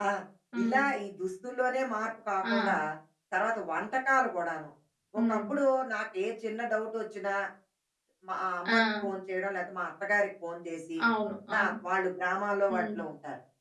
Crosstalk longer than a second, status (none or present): none